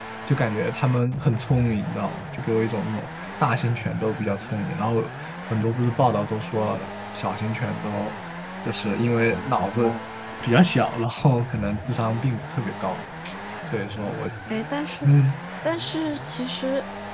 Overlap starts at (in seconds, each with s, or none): none